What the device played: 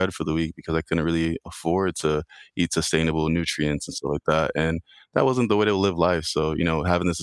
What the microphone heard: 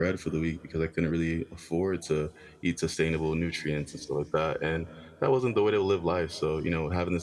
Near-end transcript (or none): none